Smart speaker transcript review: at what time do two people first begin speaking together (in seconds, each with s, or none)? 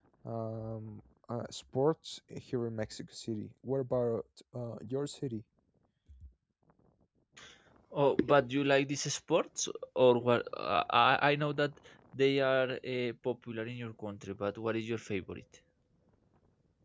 none